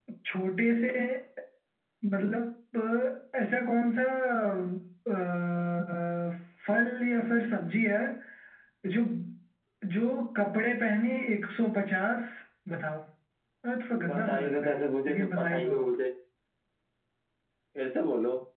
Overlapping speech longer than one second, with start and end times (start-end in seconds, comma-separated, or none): 14.1-15.7